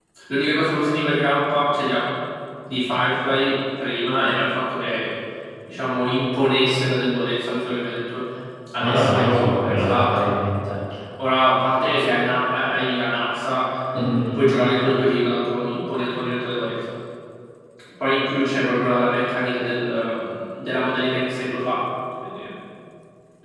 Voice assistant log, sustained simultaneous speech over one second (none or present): present